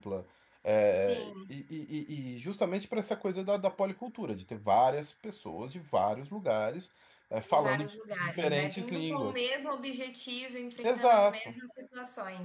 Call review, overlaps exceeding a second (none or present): present